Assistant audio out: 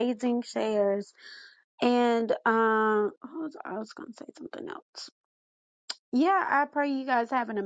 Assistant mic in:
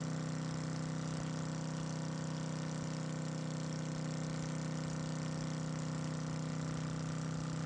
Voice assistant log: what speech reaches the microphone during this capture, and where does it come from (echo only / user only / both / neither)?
neither